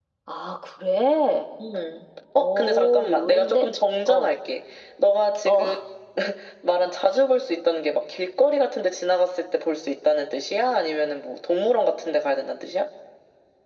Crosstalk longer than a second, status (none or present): present